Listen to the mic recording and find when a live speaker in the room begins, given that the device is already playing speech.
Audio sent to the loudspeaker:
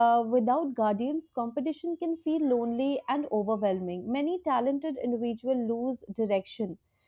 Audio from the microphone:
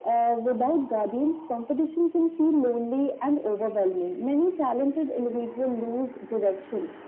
none

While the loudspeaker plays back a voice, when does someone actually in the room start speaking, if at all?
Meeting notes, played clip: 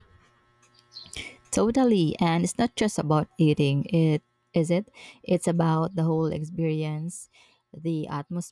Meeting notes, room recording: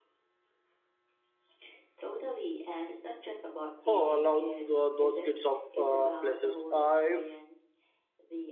3.9 s

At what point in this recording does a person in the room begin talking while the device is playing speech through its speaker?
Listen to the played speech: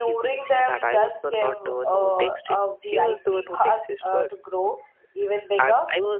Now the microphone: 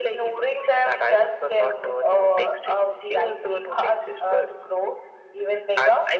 none

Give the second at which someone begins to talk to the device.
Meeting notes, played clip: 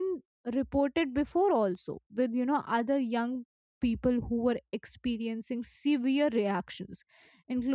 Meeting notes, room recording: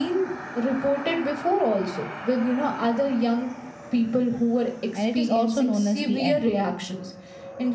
4.9 s

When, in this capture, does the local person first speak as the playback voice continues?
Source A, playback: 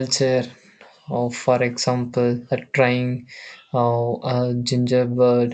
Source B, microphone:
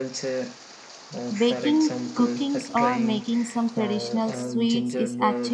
1.4 s

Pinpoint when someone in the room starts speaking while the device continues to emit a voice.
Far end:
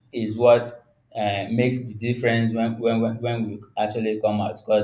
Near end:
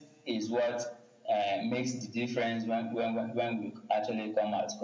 none

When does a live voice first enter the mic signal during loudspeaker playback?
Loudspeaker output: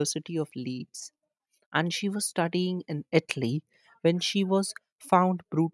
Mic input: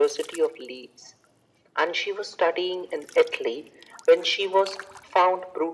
none

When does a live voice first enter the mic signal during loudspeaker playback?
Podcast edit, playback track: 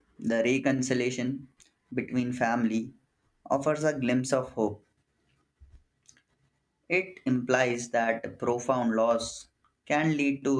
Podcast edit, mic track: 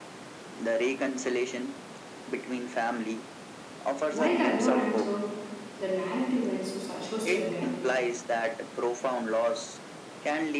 4.1 s

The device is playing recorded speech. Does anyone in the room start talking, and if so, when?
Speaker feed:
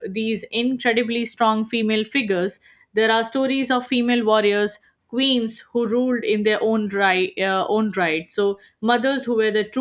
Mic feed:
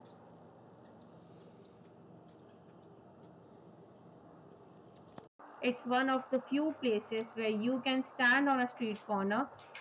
5.6 s

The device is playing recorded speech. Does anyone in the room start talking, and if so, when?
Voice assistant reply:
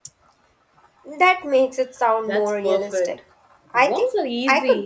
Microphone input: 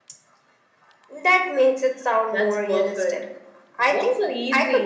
none

